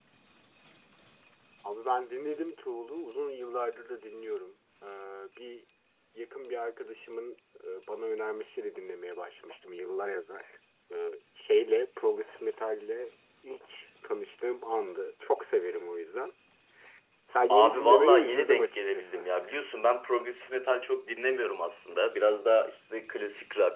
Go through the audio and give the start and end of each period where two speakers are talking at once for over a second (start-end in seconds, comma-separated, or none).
17.5-19.2